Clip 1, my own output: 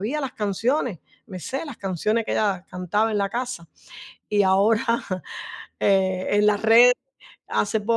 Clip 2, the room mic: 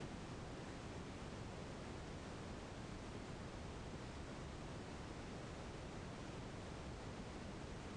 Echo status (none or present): none